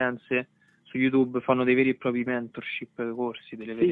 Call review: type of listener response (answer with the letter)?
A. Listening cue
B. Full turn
B